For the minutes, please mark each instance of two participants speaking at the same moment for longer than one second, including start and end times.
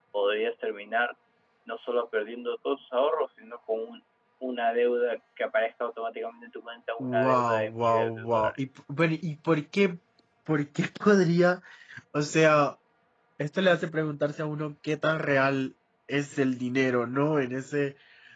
7.0-8.6

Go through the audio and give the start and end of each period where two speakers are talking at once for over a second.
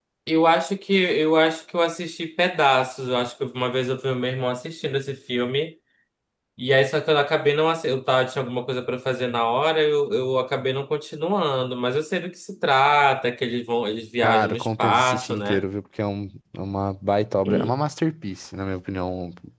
14.2-15.6

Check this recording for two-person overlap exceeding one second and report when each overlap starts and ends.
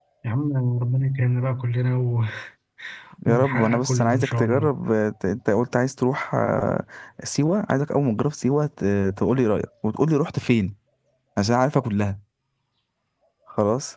3.3-4.7

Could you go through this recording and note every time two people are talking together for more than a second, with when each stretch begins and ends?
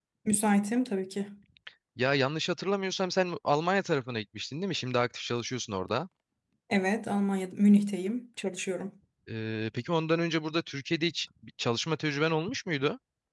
none

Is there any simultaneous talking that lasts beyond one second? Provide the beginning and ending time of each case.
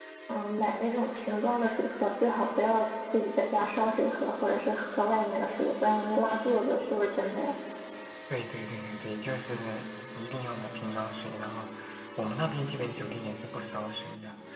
none

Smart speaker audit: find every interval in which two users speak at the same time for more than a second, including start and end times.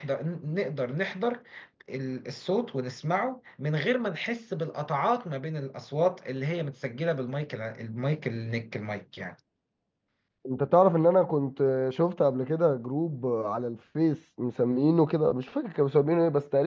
none

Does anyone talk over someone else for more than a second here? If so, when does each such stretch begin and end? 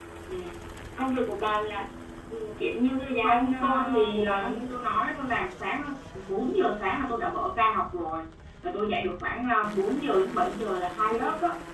3.2-4.5

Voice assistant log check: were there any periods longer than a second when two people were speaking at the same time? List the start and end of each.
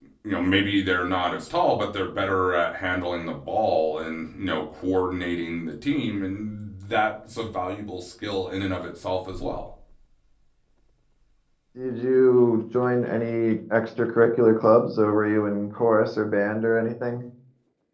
none

